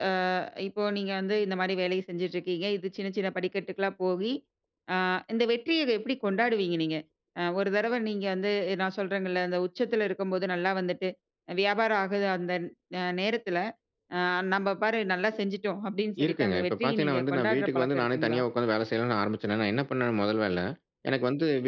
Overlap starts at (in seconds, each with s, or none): 16.2 s